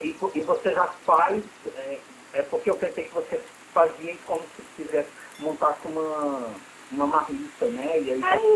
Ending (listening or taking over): listening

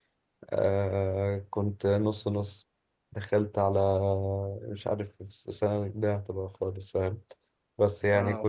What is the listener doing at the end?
listening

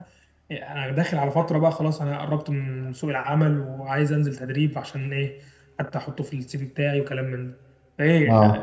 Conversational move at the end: listening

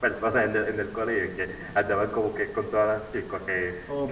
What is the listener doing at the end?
taking over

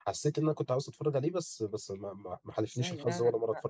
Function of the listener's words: taking over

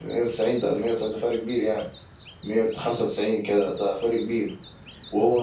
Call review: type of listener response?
listening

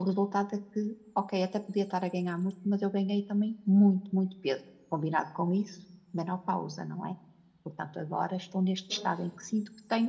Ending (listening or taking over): listening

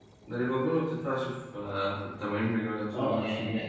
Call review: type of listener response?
taking over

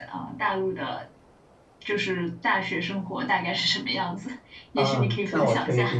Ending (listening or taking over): taking over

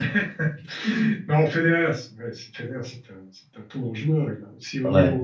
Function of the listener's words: listening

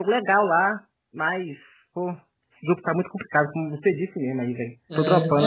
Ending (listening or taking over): taking over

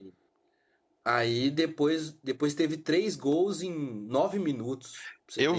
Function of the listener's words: taking over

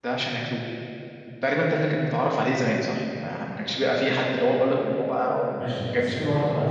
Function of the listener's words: taking over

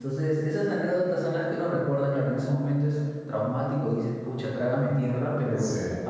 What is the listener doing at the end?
listening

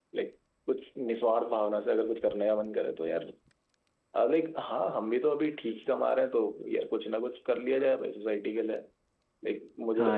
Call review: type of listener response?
taking over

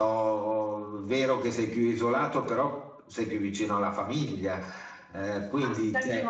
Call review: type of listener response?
taking over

